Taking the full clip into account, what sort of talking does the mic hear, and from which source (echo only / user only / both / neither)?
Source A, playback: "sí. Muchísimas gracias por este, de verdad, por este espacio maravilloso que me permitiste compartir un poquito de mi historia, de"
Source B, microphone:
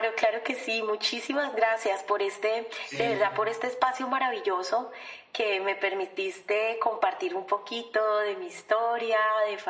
both